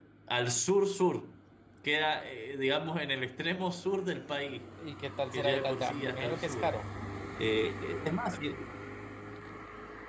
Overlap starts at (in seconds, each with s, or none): 5.3 s